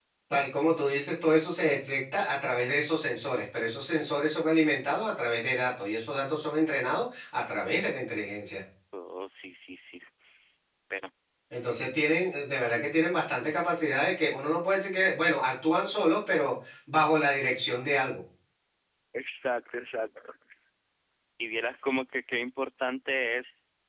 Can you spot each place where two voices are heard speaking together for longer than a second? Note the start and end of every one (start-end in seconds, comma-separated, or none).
none